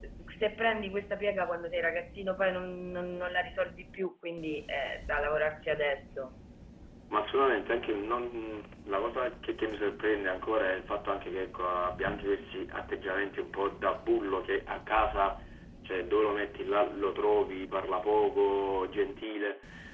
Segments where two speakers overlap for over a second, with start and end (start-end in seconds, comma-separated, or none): none